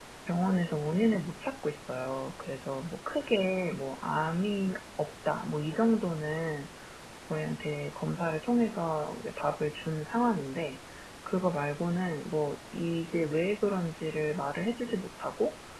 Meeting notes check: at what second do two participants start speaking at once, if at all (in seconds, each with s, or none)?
none